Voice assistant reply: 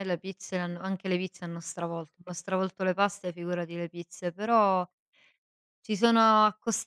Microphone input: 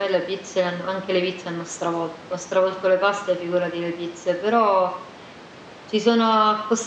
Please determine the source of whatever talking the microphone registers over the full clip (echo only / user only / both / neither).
echo only